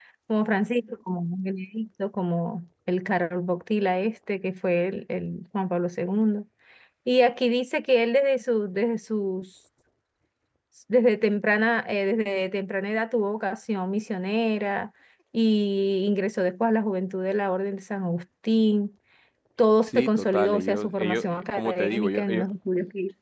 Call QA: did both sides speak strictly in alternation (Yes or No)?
No